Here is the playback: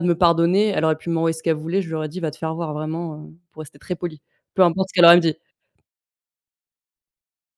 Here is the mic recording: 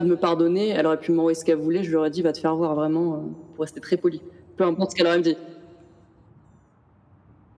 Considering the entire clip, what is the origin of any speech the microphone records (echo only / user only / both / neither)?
echo only